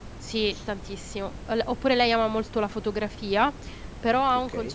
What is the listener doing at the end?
listening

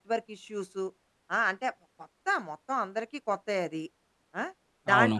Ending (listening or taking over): listening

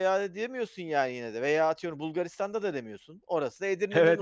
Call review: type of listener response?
taking over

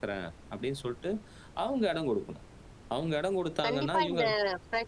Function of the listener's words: taking over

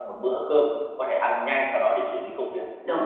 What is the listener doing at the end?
taking over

